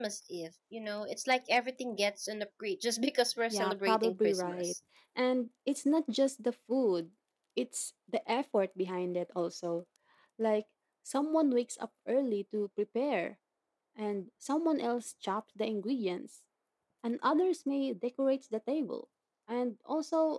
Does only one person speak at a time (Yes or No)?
No